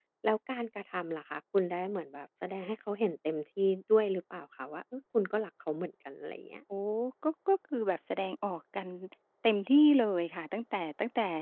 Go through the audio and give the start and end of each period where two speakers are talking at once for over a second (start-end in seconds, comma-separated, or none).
none